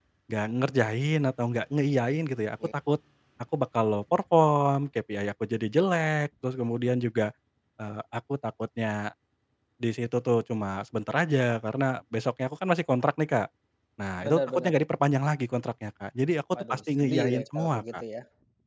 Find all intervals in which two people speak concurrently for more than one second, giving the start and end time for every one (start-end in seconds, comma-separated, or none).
16.5-18.0